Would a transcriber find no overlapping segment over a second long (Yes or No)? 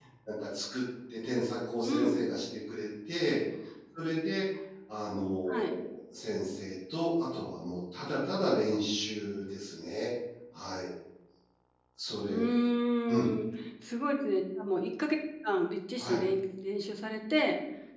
Yes